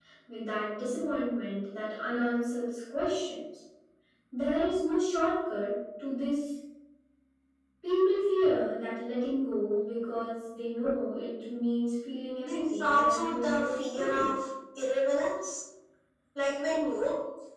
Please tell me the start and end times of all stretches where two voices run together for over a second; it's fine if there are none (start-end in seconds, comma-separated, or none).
12.4-14.3